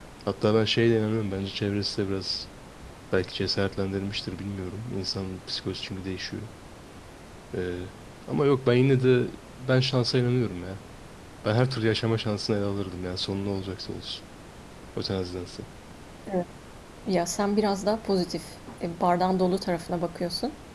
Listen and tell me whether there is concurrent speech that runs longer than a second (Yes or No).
No